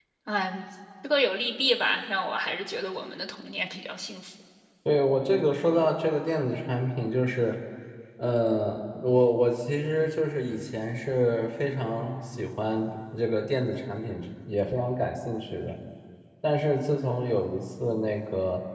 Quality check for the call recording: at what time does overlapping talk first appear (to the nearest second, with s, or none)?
none